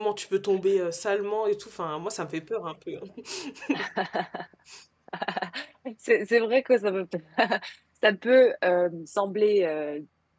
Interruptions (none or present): none